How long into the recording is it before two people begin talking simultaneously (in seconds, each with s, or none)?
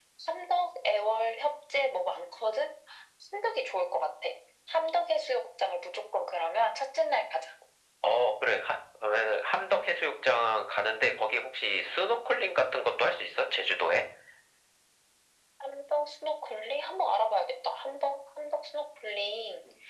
none